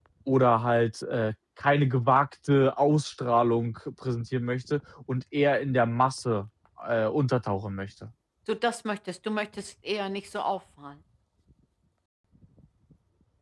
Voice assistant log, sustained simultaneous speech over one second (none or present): none